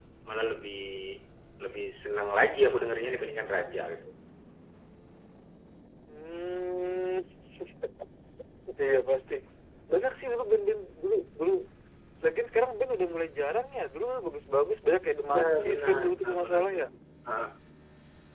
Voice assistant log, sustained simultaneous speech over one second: present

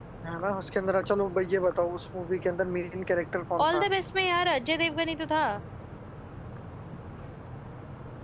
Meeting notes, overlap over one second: none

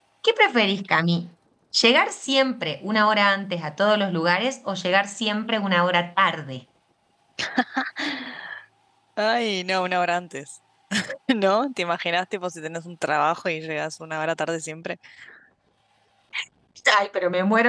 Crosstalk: none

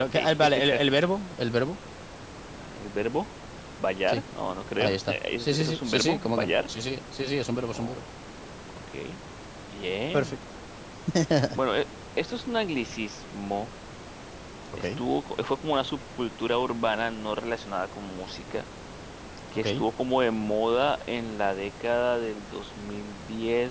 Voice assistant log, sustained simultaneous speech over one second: present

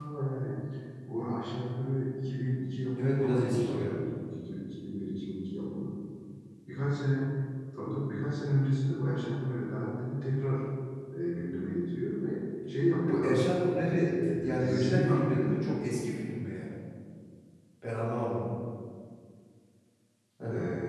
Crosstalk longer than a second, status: present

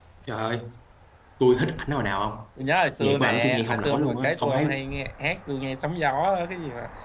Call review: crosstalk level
present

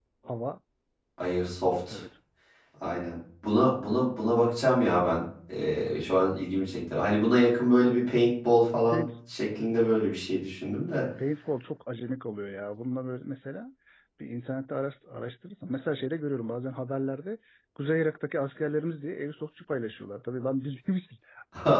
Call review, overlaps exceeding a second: none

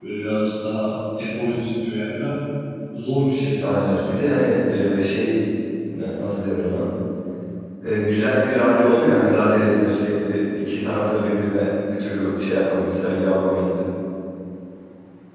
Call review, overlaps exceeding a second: none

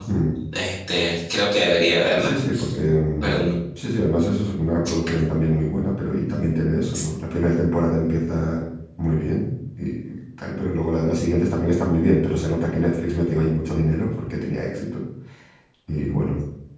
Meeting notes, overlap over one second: none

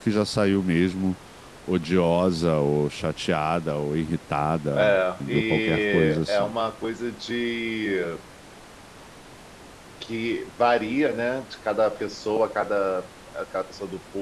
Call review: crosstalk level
present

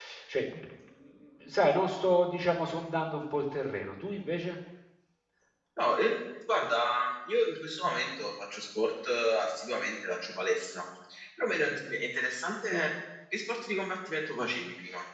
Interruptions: none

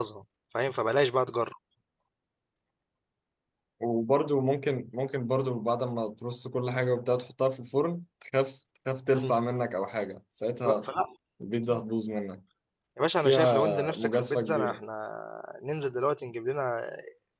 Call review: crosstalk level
present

